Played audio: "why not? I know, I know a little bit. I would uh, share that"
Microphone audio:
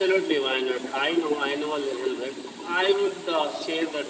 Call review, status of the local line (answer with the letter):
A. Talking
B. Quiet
B